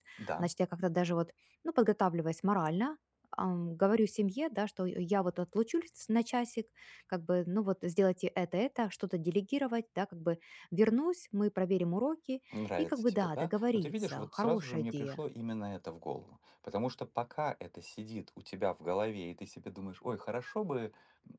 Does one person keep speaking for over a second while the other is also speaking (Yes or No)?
Yes